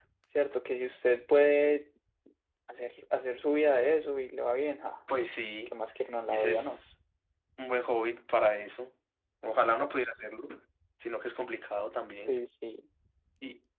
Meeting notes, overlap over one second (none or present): none